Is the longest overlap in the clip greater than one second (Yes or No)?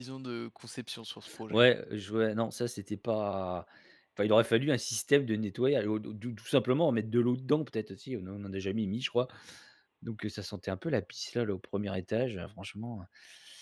No